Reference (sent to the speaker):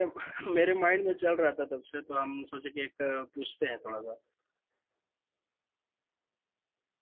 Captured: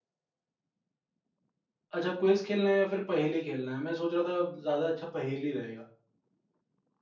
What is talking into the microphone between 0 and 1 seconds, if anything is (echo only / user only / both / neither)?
neither